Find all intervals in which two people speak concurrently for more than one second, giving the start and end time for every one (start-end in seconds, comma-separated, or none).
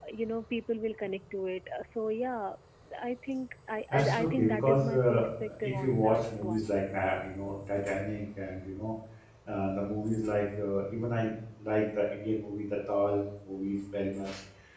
3.9-6.7